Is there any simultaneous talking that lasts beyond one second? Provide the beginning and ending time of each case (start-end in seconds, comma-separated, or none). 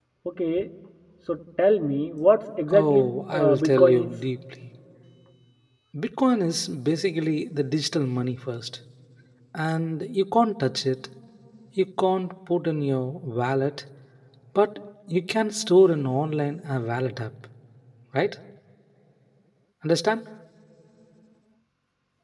2.7-4.1